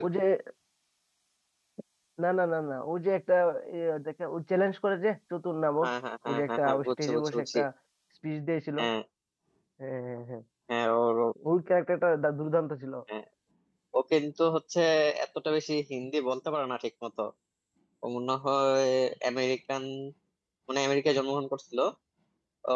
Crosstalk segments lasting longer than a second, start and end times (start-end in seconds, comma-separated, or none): 6.3-7.6